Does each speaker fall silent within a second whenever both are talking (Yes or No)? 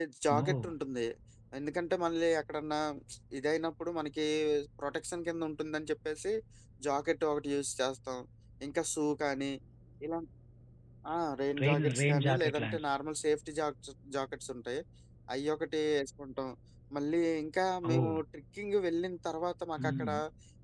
No